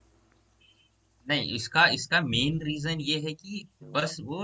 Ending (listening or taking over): listening